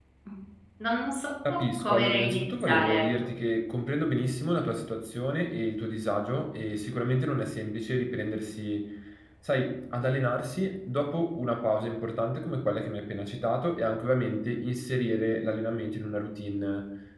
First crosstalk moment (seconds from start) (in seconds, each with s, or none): 1.5 s